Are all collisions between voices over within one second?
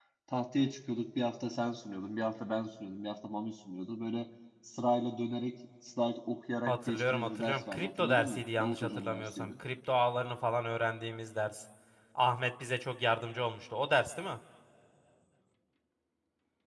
No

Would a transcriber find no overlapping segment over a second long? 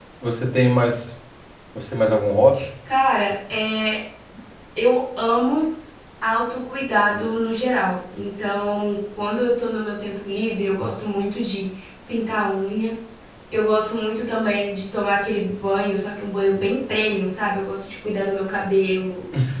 Yes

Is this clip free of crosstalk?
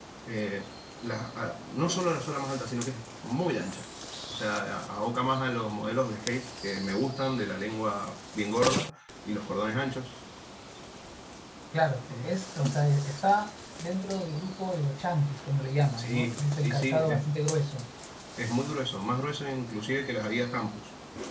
No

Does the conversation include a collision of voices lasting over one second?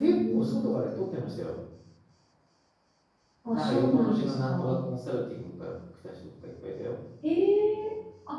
Yes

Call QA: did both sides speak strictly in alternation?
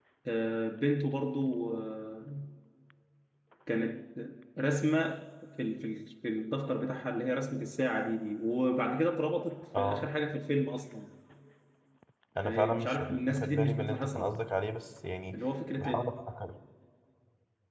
No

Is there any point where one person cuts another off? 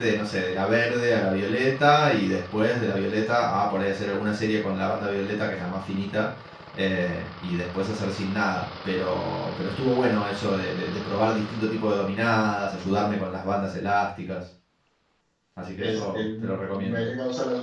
Yes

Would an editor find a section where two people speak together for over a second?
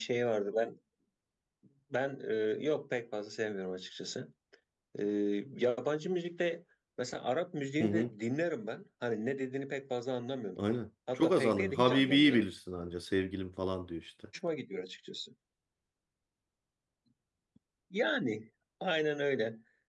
Yes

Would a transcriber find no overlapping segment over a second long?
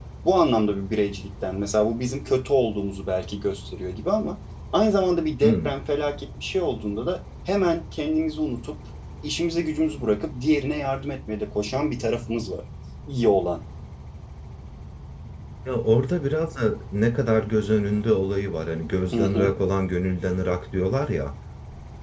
Yes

